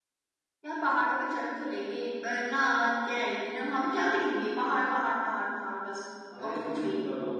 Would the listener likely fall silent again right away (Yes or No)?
No